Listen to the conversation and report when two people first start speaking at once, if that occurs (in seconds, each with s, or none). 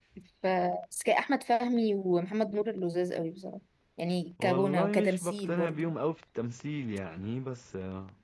4.4 s